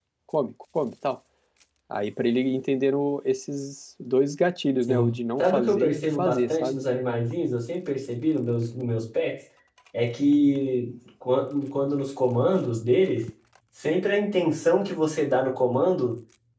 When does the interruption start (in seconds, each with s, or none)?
4.8 s